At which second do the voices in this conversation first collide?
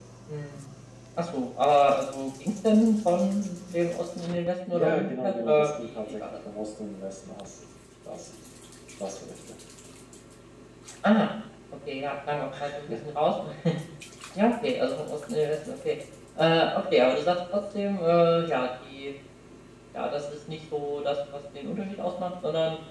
4.7 s

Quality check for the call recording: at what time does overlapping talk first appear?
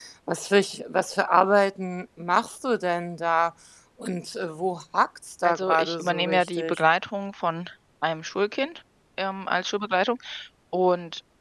5.4 s

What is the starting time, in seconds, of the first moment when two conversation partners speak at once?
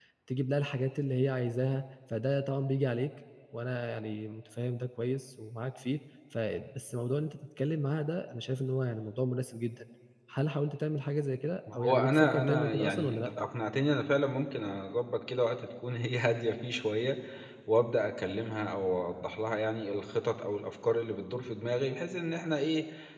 11.7 s

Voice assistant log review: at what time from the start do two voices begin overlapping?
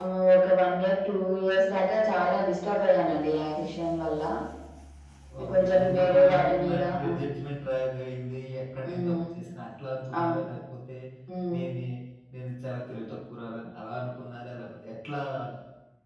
5.5 s

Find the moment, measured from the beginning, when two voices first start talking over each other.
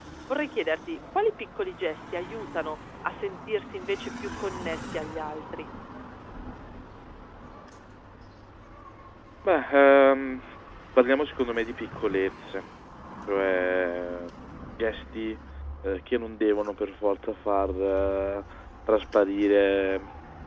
none

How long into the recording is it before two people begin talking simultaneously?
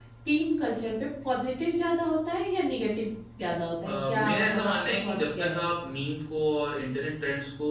3.8 s

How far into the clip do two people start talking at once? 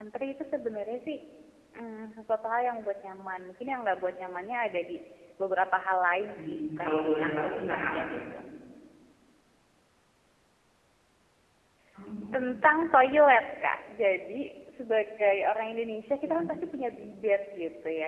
6.3 s

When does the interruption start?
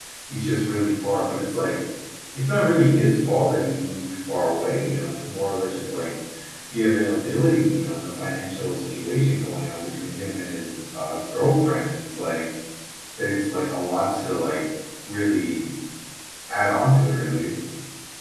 none

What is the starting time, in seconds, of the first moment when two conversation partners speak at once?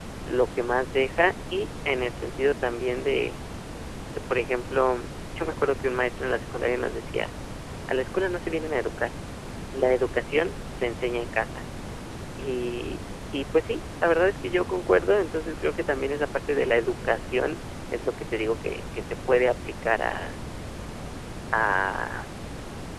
none

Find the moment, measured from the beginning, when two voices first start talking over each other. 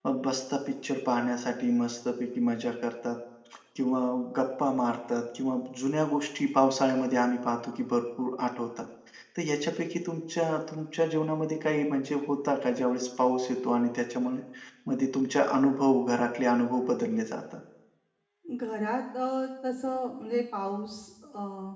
none

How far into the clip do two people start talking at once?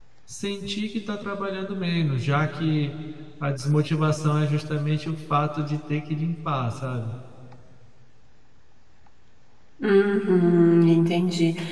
none

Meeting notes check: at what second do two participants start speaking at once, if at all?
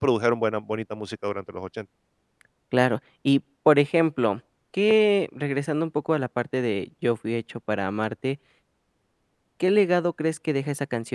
none

